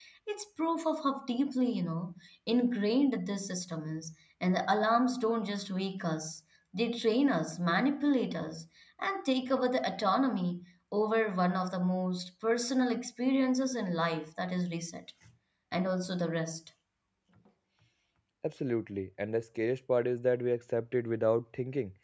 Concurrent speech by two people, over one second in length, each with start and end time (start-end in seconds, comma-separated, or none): none